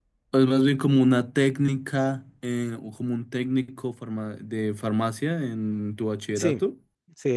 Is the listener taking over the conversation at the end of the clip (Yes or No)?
Yes